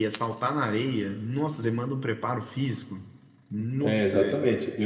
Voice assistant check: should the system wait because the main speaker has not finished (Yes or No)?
No